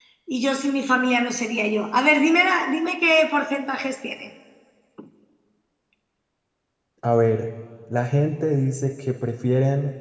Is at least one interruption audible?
No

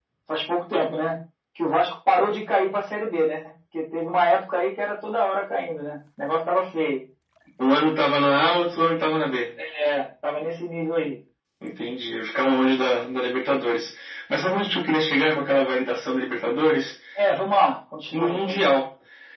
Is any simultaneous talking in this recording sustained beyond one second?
No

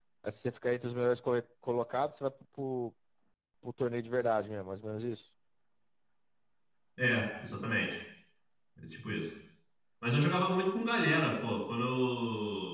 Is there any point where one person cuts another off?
No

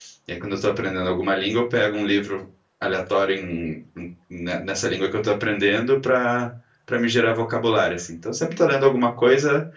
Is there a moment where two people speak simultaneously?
No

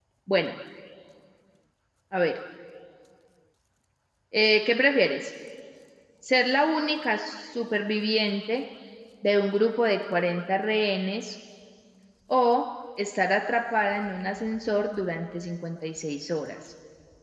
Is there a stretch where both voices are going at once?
No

